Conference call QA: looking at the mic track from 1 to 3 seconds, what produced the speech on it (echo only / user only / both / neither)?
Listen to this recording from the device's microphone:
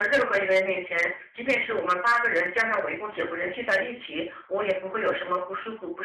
echo only